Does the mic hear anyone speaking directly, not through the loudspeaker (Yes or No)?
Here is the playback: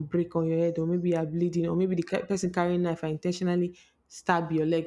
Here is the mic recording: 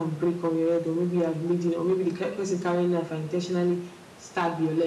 No